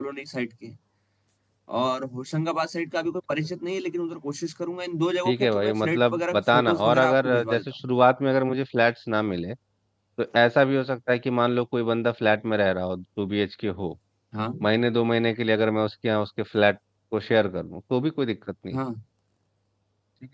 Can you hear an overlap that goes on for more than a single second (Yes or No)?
Yes